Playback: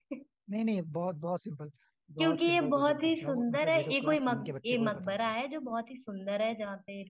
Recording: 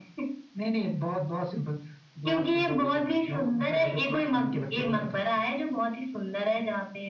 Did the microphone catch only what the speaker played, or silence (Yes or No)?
Yes